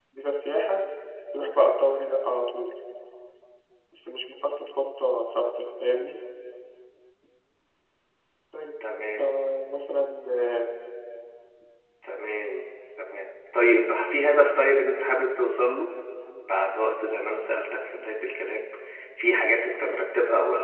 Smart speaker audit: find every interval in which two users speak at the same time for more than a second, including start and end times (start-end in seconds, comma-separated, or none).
none